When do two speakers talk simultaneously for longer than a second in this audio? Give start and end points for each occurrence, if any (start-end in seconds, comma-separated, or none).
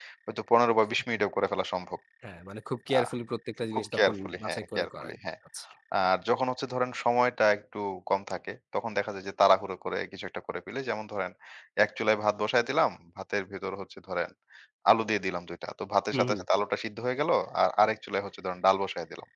3.7-5.2